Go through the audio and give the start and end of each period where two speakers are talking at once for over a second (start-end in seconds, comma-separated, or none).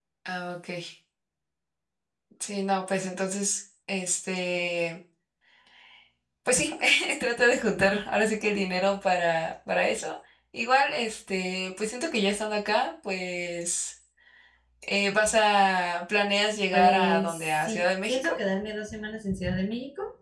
16.7-18.4